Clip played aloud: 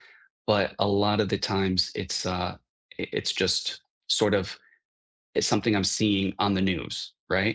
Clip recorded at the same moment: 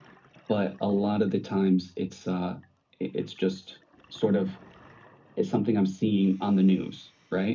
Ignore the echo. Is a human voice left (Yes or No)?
No